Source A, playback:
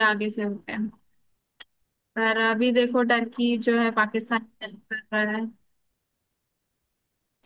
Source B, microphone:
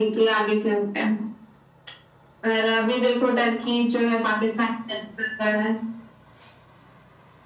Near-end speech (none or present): none